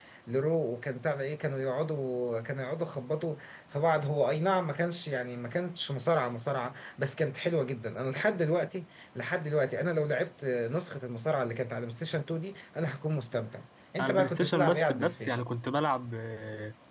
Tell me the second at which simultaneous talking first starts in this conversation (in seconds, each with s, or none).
14.0 s